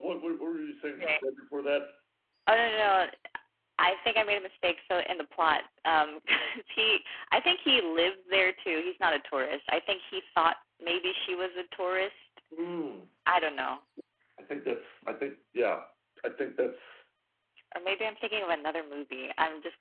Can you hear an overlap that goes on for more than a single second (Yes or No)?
No